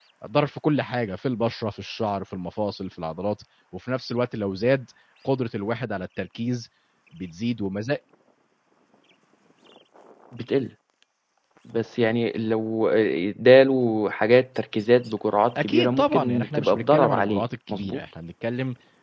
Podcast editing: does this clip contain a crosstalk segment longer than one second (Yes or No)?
Yes